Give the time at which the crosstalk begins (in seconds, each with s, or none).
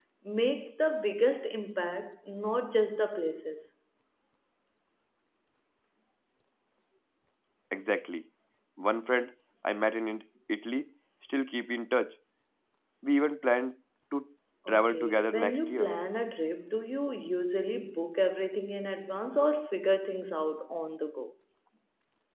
14.7 s